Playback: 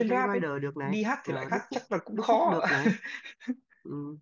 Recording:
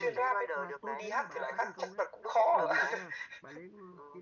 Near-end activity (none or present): present